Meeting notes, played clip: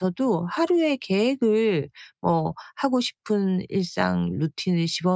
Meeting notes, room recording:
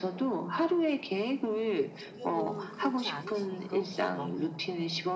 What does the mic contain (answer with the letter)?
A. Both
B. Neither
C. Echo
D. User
A